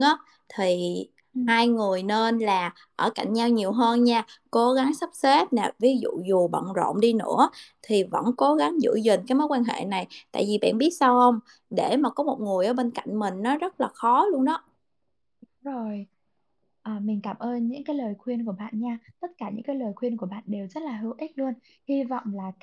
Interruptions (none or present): none